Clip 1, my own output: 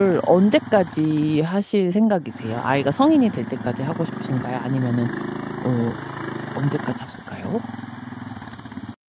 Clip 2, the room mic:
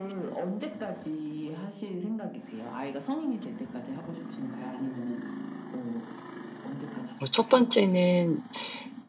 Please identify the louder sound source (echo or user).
user